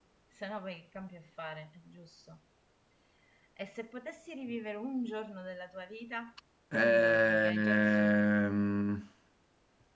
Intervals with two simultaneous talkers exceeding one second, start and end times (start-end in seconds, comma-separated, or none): 6.7-8.2